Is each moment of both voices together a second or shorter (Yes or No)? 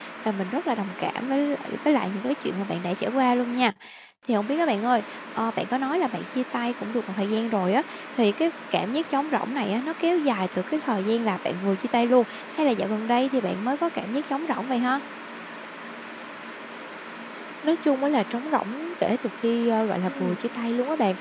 Yes